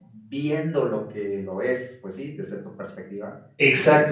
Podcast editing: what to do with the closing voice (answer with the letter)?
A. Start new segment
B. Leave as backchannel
A